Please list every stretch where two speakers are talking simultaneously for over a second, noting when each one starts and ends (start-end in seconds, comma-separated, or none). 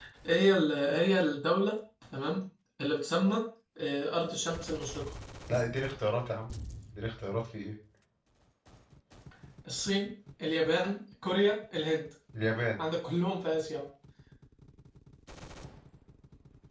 none